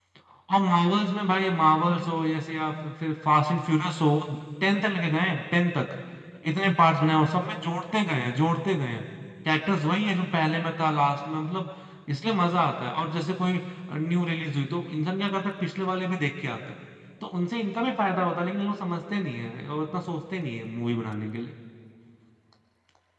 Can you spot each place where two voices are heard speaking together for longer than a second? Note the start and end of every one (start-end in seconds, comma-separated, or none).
none